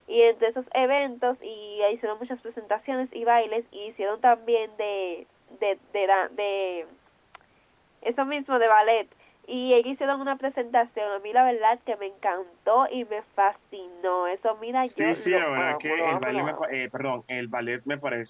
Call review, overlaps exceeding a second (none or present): present